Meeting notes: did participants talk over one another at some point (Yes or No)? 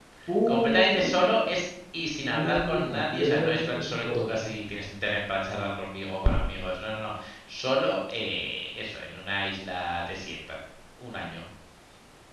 Yes